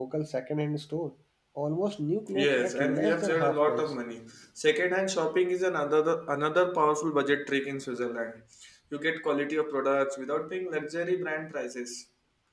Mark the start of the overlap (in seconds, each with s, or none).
2.3 s